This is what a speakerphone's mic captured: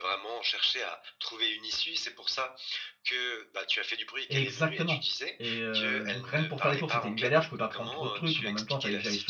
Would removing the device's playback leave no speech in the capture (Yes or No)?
No